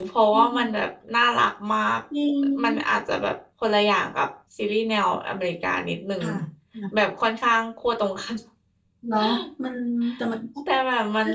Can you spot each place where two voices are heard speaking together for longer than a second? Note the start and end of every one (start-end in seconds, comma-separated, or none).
none